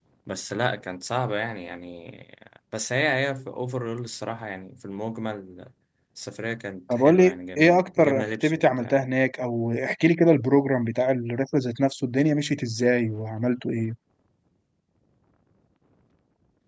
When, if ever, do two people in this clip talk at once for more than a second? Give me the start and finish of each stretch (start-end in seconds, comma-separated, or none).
6.9-9.0